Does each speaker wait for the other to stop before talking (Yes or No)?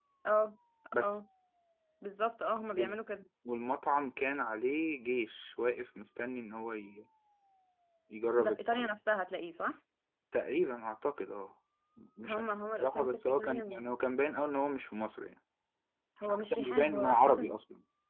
No